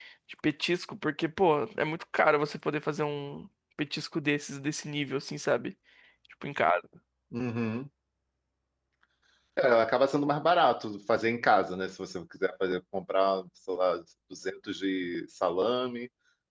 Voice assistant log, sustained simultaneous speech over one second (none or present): none